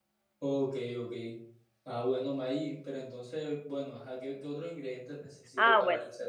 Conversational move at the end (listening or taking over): taking over